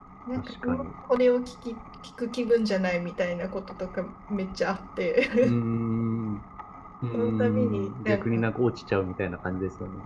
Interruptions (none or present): present